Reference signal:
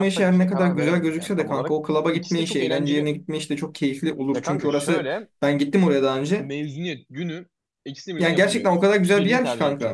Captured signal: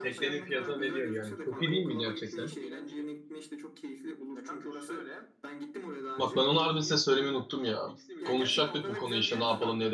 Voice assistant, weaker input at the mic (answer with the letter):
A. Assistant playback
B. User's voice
A